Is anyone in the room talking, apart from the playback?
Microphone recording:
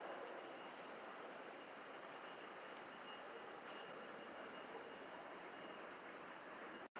No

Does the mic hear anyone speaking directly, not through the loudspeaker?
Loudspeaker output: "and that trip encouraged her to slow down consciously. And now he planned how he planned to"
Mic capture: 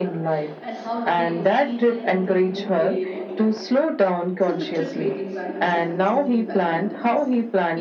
Yes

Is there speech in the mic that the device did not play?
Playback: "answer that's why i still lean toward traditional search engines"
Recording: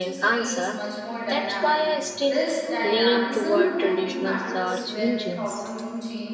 Yes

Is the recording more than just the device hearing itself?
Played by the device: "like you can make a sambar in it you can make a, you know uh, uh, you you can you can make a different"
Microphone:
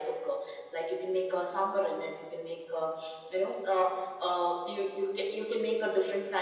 No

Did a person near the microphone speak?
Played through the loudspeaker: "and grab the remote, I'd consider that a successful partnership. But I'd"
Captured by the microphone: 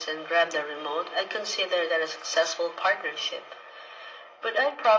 No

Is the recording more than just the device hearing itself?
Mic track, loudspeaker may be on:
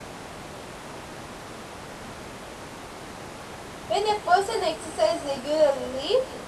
Yes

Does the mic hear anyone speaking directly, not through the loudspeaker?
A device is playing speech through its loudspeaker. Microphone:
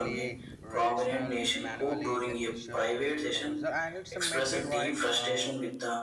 Yes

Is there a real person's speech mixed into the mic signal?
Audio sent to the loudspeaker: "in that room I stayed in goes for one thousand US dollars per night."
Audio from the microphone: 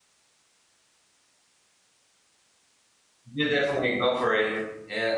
Yes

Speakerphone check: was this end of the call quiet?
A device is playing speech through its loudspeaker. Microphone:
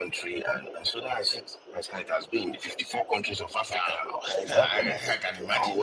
No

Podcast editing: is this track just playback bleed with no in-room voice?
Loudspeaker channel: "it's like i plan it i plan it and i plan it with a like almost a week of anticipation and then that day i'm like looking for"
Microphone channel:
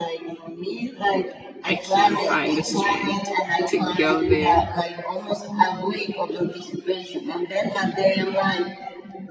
No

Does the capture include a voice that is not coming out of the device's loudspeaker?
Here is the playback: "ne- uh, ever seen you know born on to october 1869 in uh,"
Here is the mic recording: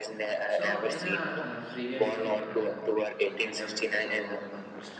Yes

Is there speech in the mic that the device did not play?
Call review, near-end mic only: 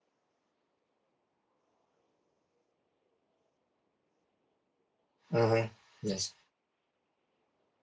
Yes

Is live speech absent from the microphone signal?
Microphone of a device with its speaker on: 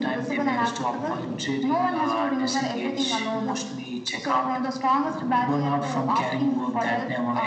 Yes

